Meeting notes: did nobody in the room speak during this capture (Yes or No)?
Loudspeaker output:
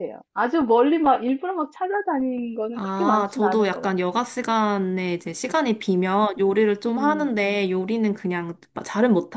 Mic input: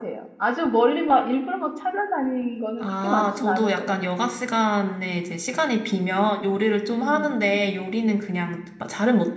Yes